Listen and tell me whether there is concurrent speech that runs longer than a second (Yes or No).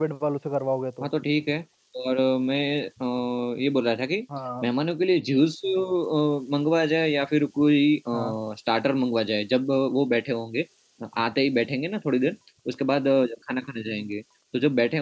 No